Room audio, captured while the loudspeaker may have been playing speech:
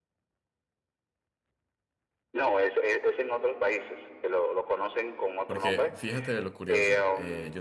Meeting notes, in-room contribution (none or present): present